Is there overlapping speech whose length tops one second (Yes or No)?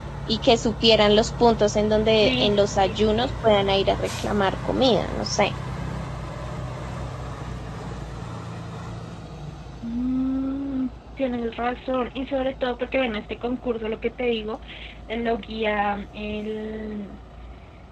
Yes